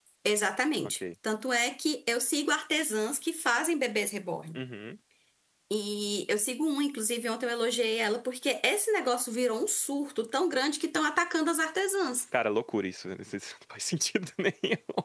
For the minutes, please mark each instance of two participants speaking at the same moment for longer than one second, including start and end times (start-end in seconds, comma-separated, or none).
none